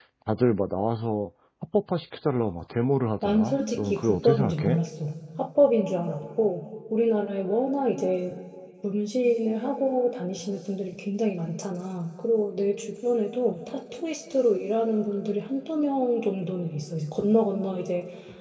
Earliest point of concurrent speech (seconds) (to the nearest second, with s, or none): 3 s